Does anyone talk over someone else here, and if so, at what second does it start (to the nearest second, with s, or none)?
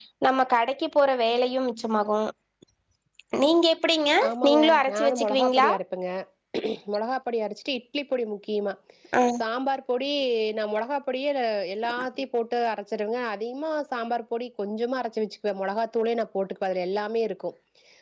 4 s